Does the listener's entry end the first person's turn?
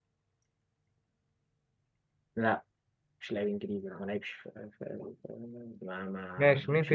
Yes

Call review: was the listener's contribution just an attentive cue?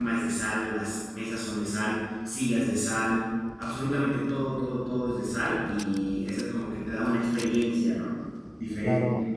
No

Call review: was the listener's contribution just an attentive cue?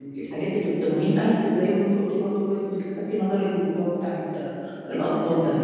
No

